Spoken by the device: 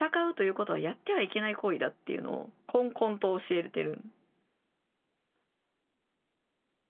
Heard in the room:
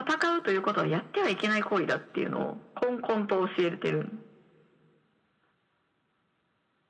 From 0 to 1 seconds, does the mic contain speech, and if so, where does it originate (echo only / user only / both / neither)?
echo only